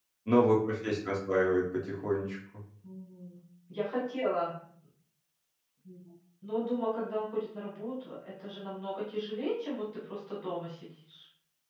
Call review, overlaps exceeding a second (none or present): none